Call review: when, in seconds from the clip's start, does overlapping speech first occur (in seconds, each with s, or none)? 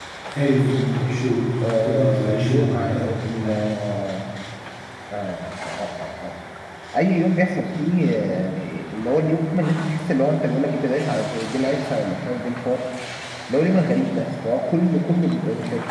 1.6 s